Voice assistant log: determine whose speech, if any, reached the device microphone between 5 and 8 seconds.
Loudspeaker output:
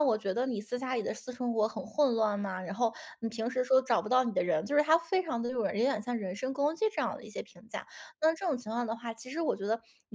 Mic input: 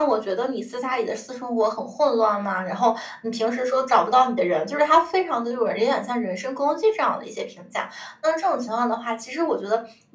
echo only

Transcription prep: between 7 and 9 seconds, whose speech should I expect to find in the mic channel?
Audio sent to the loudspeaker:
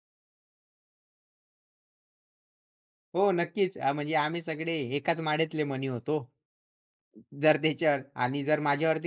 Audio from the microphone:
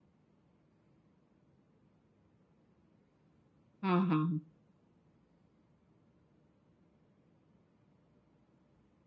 neither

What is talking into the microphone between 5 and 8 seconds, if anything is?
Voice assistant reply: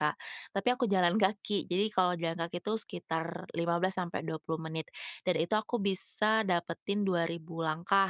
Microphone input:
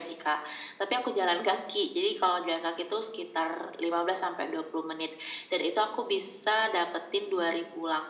echo only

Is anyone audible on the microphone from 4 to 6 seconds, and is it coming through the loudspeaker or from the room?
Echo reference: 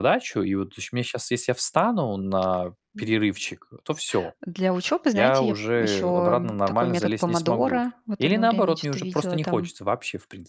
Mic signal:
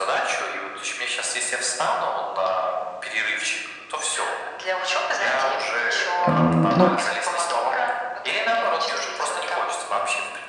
echo only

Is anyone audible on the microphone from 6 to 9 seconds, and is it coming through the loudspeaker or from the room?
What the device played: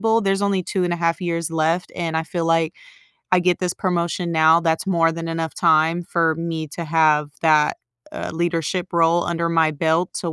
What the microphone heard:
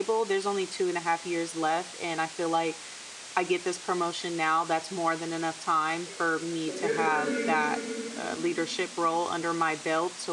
both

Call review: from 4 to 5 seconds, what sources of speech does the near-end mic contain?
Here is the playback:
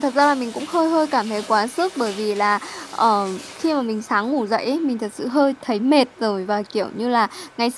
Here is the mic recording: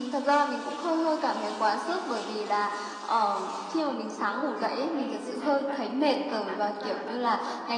both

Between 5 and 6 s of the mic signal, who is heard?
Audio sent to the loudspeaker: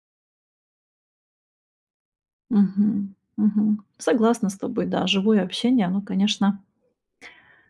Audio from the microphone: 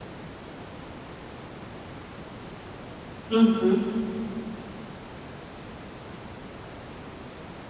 neither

